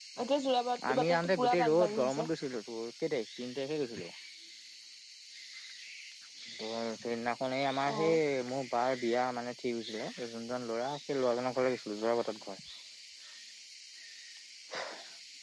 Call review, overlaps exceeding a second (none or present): present